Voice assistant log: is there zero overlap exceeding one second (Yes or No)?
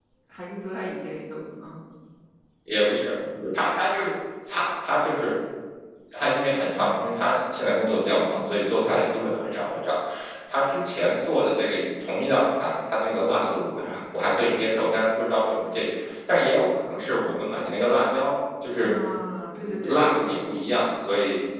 Yes